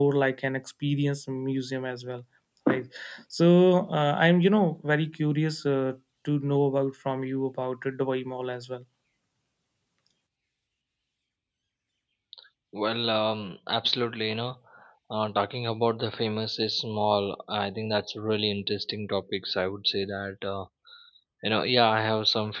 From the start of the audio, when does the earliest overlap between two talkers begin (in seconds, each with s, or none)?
none